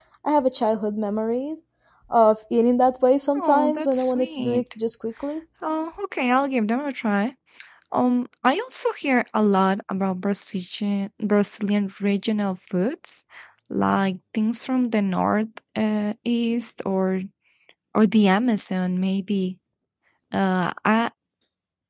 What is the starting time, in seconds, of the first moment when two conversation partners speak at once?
3.4 s

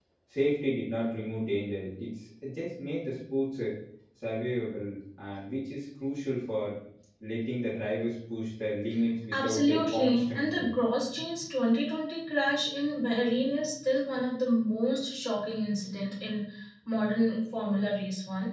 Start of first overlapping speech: 9.3 s

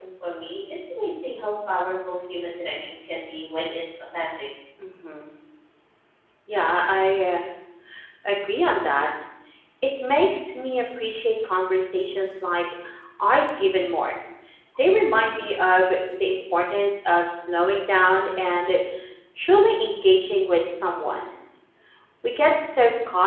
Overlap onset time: none

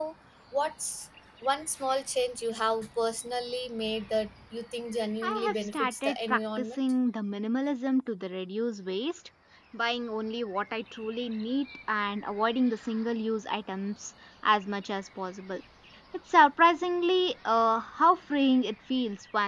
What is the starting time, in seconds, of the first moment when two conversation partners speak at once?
5.2 s

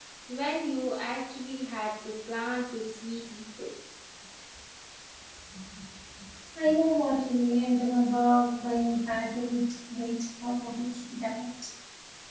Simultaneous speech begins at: none

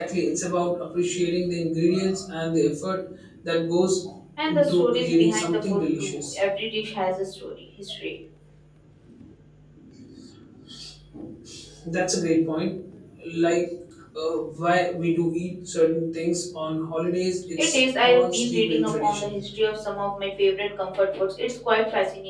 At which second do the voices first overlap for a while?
4.5 s

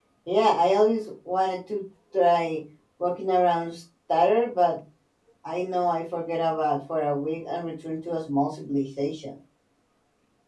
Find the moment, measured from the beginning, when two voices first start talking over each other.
none

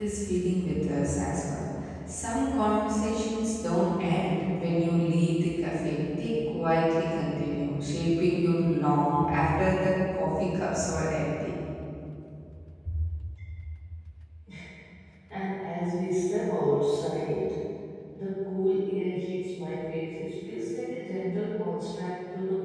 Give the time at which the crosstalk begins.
none

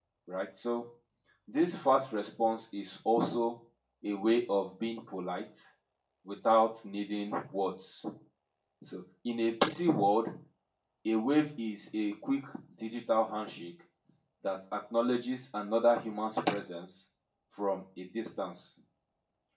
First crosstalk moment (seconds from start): none

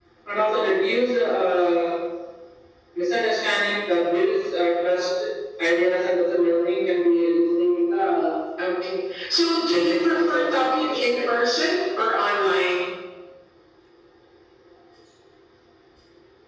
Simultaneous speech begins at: 9.7 s

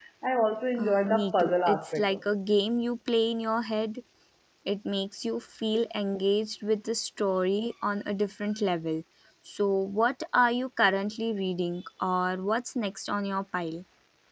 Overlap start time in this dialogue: 0.8 s

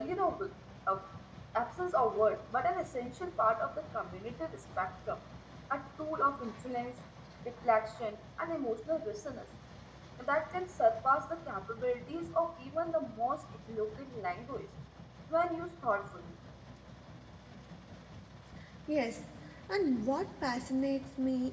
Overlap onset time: none

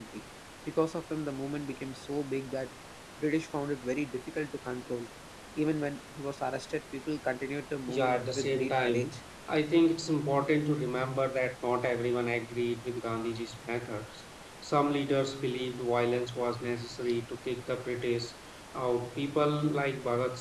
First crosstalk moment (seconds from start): 7.9 s

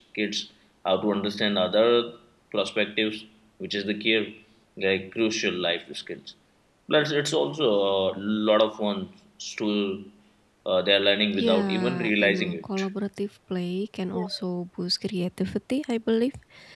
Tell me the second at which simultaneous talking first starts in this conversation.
11.4 s

